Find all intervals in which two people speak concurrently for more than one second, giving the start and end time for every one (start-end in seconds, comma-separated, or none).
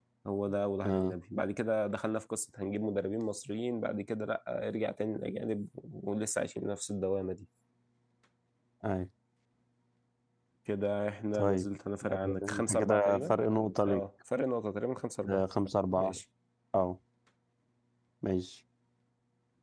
12.1-13.4